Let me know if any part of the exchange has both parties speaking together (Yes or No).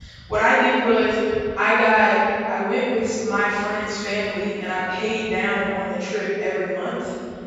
No